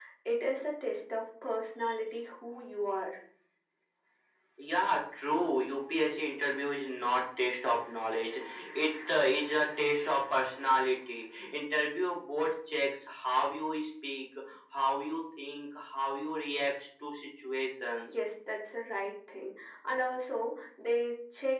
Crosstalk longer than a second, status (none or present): none